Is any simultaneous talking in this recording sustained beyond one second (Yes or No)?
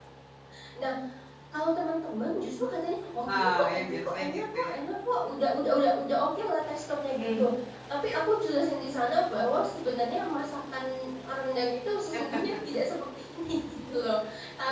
Yes